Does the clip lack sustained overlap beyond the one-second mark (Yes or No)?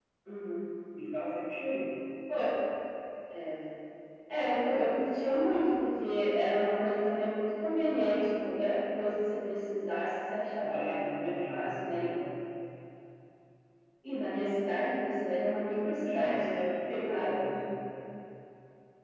No